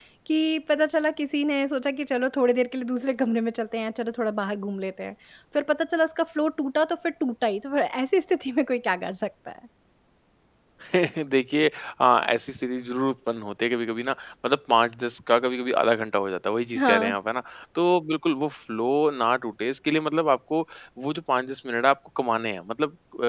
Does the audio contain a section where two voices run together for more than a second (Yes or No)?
No